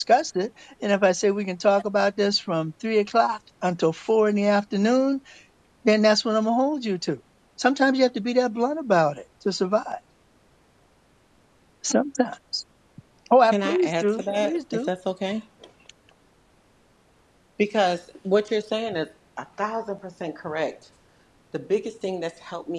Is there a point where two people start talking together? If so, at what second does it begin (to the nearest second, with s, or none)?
13 s